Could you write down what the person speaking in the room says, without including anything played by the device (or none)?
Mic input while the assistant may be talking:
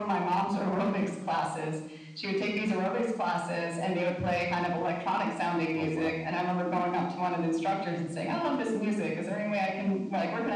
Oh wow.